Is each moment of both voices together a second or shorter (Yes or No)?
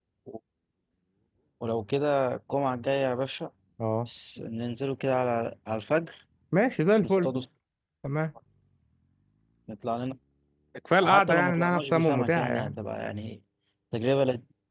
No